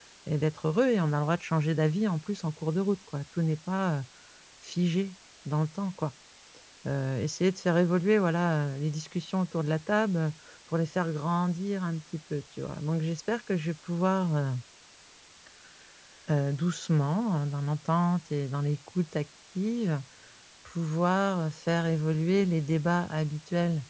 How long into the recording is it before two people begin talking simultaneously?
none

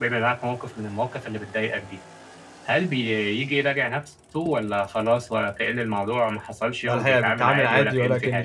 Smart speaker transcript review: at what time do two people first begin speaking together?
6.9 s

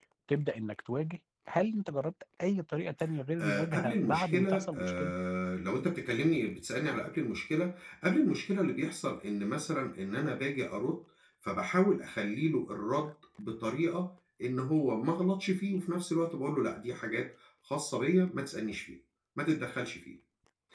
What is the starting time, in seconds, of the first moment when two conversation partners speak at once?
3.4 s

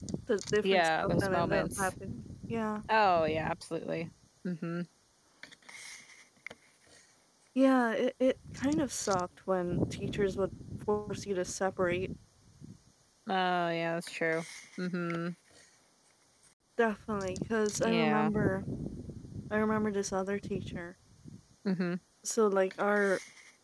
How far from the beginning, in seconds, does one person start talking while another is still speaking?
0.6 s

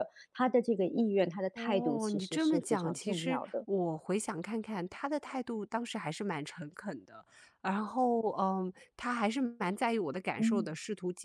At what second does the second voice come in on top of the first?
1.6 s

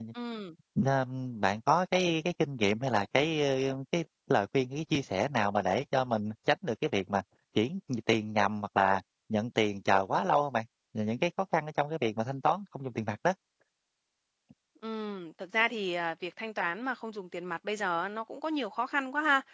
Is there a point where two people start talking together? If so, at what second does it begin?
none

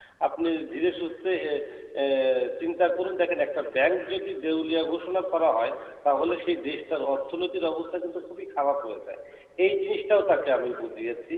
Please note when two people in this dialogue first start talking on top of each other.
none

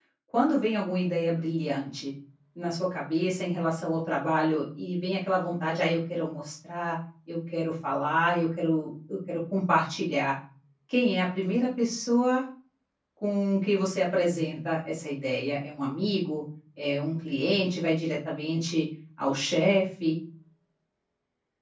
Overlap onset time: none

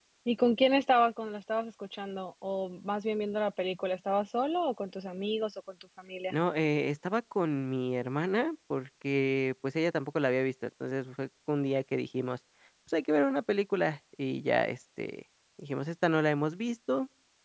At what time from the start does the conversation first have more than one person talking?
none

